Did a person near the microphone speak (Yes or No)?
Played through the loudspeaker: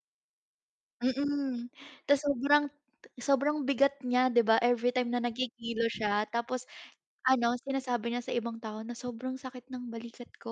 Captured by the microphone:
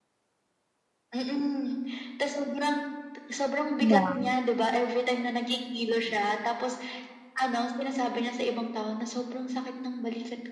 Yes